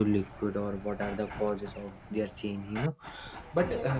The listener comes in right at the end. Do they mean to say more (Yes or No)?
No